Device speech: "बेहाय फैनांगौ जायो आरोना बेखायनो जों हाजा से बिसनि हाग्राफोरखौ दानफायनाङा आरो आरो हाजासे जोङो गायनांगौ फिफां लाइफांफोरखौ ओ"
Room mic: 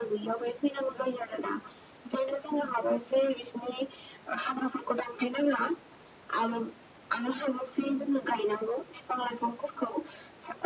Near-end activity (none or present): none